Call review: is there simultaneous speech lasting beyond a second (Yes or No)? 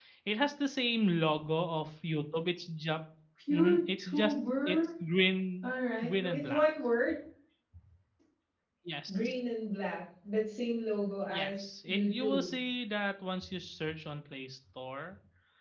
Yes